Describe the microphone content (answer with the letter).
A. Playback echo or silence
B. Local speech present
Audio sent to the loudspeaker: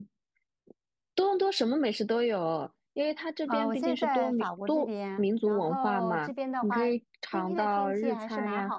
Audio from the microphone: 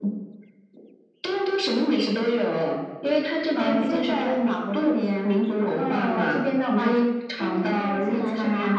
B